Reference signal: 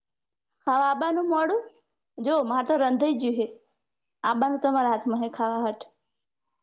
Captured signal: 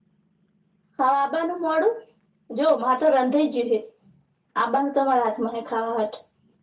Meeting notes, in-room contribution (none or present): none